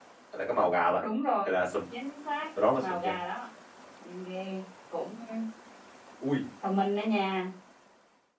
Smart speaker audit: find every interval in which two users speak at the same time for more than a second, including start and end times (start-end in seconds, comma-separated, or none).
none